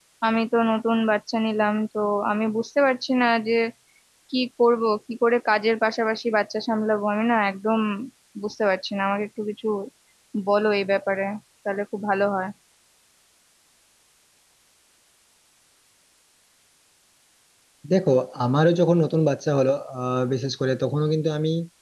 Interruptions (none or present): none